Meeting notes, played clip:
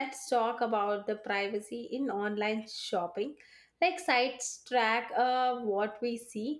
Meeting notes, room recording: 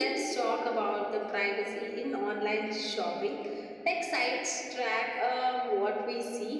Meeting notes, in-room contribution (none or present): none